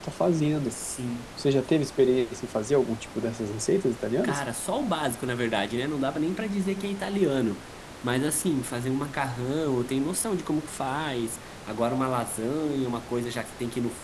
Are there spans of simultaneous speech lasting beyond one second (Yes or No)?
No